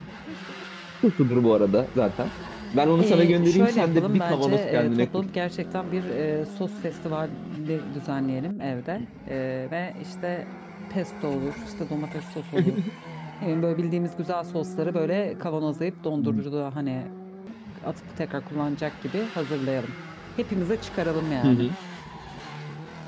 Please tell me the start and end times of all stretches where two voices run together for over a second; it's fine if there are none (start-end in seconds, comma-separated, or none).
3.0-5.1